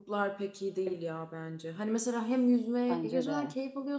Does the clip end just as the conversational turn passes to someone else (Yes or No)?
No